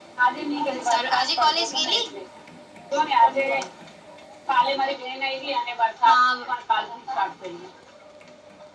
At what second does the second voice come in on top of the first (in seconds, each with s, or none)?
0.7 s